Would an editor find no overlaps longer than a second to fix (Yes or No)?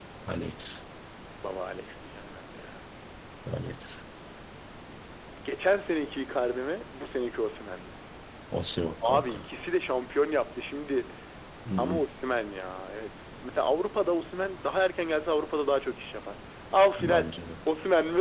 Yes